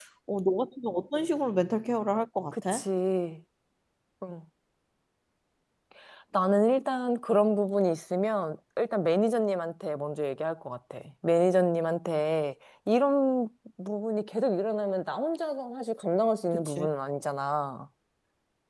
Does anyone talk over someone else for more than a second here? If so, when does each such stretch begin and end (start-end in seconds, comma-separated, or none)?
none